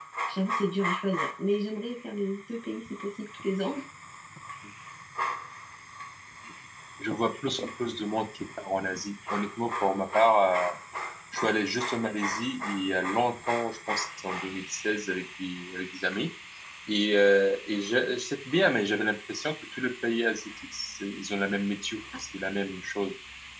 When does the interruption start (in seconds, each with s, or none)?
none